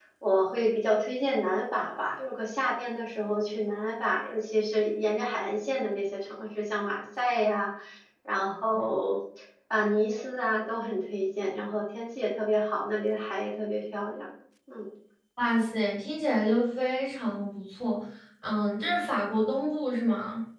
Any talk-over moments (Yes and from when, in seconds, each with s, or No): No